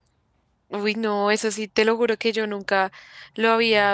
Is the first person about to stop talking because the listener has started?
No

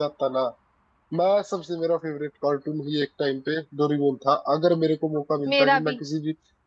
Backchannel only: Yes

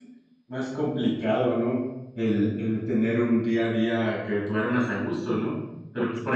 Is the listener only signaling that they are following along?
Yes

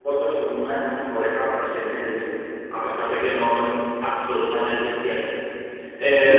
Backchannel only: No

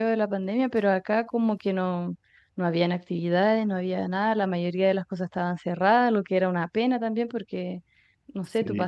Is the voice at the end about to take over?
No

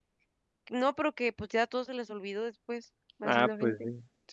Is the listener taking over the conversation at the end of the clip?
Yes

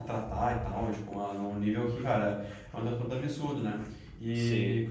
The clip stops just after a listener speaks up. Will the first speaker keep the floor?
Yes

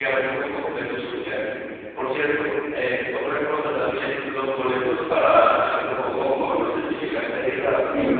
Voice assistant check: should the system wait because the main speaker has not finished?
No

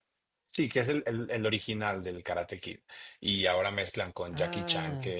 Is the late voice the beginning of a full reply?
No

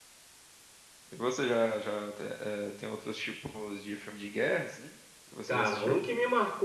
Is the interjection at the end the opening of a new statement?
Yes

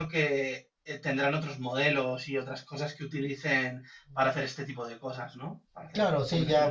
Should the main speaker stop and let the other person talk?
Yes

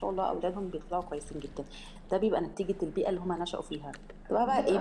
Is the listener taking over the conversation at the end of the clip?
No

